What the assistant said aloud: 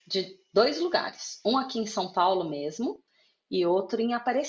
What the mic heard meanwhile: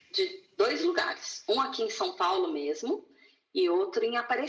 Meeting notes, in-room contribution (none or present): none